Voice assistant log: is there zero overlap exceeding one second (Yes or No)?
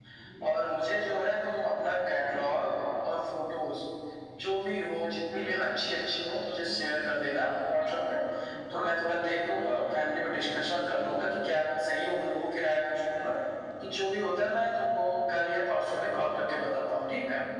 Yes